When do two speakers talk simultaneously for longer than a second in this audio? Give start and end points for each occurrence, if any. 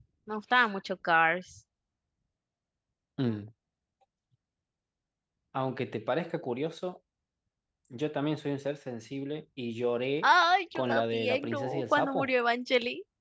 10.8-12.3

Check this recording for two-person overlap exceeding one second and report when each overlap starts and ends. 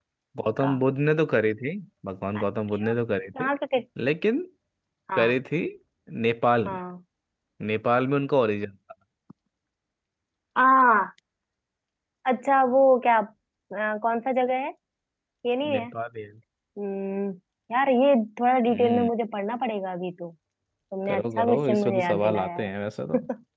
21.1-22.7

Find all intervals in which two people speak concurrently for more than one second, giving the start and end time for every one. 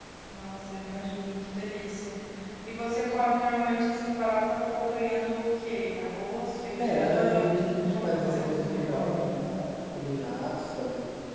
6.8-9.1

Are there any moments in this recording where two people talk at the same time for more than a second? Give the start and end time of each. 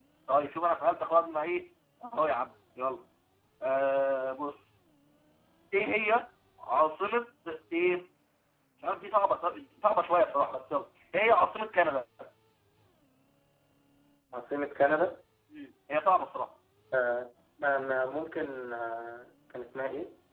none

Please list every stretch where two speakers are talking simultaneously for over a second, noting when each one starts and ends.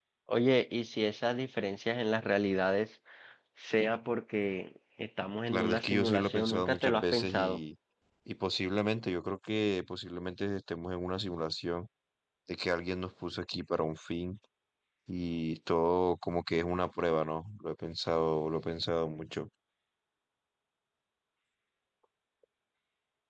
5.5-7.6

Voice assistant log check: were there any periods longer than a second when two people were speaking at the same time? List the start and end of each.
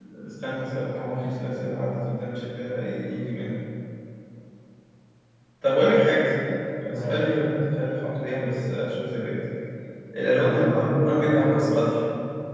10.4-12.0

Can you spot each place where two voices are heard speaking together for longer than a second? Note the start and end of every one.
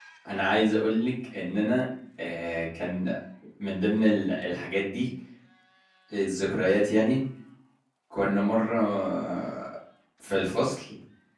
none

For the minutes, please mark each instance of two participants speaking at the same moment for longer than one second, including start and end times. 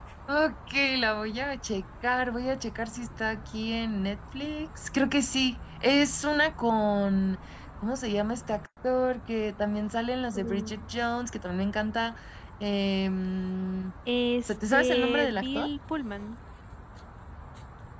14.4-15.7

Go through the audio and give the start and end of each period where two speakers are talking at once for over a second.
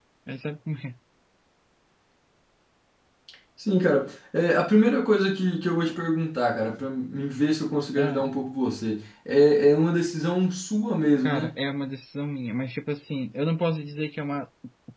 none

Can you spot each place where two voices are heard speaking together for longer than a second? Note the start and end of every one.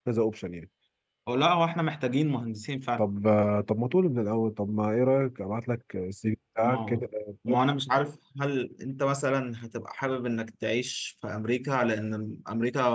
none

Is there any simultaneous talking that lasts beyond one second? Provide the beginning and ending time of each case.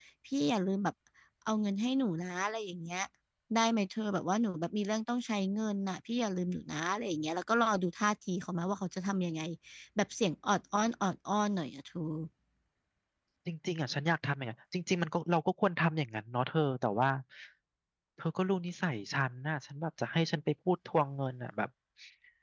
none

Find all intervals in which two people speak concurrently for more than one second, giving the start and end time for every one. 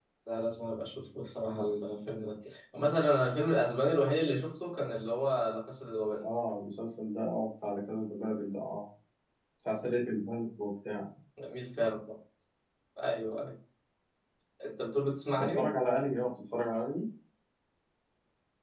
none

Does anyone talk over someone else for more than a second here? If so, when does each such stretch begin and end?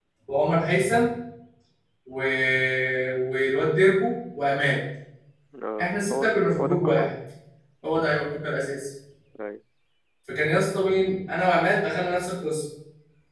5.8-7.1

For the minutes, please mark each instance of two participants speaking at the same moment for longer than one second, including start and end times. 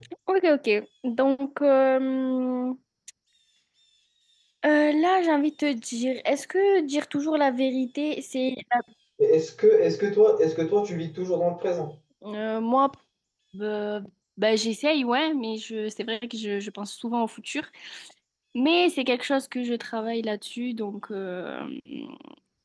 none

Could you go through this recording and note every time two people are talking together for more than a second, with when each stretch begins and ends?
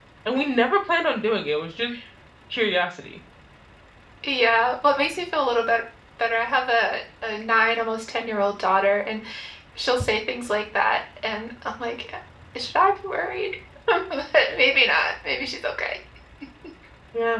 none

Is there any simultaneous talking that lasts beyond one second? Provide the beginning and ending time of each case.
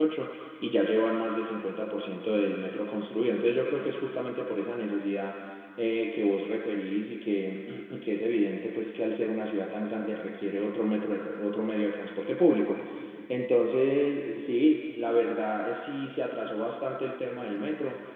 none

